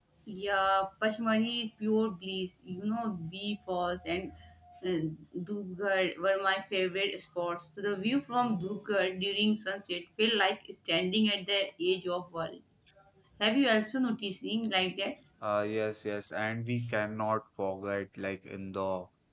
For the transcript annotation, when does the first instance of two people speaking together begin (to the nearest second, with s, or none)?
none